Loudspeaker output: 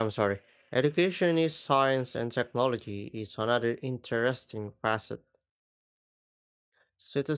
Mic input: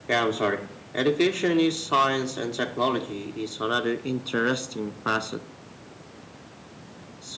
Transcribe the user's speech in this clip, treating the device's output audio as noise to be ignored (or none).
none